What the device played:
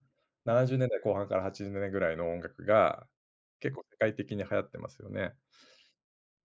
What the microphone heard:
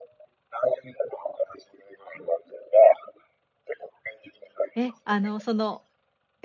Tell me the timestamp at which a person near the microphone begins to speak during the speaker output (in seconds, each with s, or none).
4.8 s